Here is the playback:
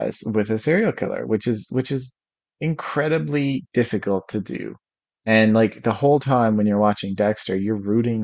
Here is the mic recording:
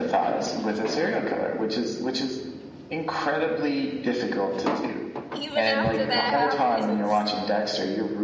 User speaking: Yes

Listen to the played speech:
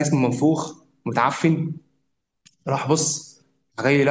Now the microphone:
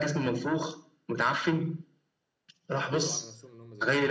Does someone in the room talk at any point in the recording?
Yes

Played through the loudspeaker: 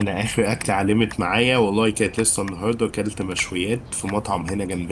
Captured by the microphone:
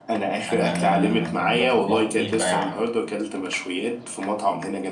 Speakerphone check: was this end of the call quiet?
No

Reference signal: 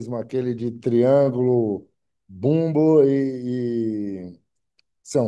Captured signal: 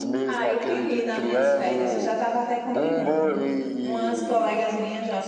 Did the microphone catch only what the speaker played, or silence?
No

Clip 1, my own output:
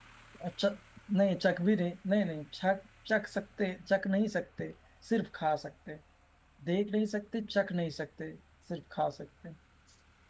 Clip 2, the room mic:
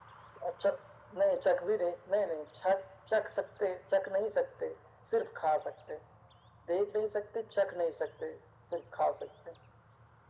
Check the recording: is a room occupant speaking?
No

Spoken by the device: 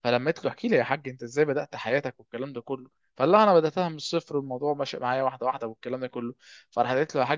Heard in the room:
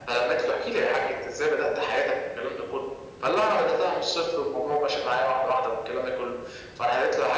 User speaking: No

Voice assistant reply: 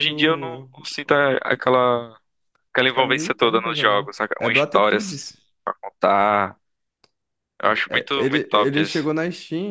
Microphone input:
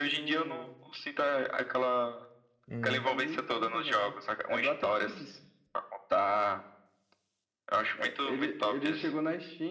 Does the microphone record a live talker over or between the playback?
Yes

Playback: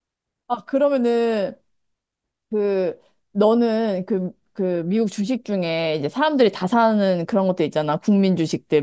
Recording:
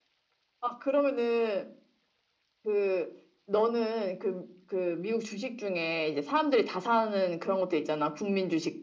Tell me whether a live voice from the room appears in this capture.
No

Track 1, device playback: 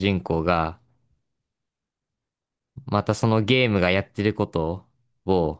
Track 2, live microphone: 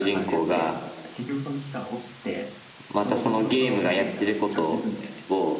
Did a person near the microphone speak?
Yes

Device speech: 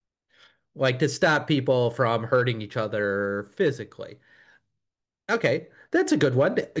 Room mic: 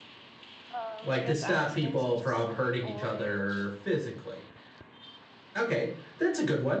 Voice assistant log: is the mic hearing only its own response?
No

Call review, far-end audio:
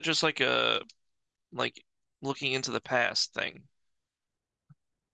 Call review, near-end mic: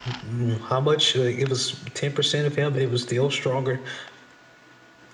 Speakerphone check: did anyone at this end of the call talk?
Yes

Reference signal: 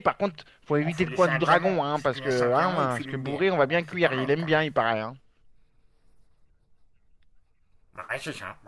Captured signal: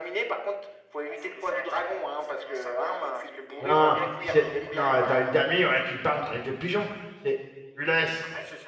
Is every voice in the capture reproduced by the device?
No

